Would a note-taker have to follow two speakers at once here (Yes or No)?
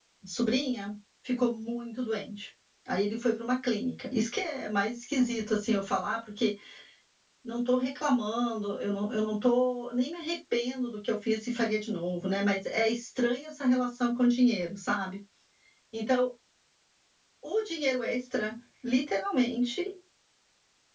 No